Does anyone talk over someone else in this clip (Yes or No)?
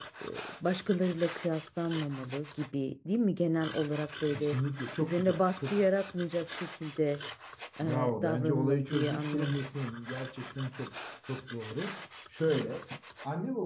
Yes